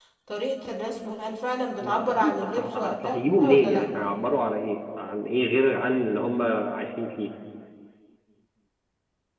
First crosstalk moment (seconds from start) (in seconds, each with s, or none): 1.8 s